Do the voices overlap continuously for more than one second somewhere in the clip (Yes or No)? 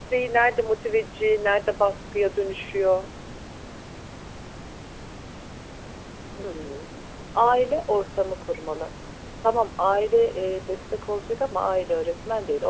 No